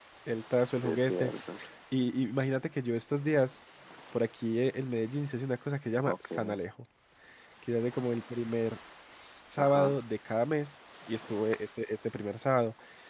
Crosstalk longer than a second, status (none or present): none